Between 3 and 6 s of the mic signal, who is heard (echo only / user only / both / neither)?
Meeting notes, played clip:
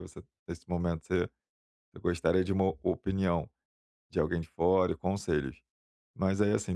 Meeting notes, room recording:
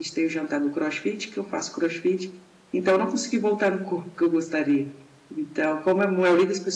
user only